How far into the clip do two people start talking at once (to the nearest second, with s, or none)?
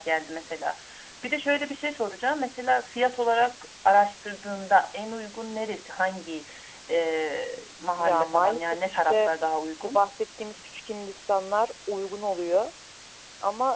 8 s